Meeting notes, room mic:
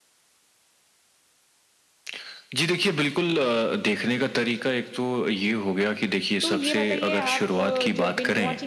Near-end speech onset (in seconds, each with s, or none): 6.4 s